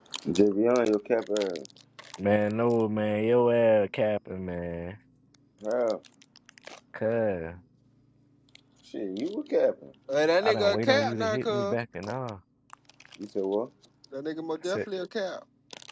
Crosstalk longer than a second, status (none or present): present